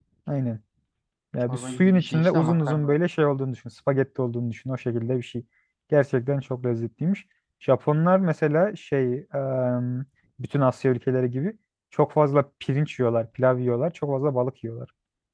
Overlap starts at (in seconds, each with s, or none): 1.4 s